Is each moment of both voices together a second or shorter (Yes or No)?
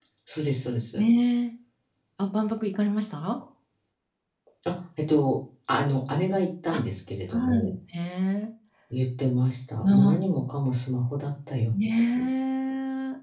Yes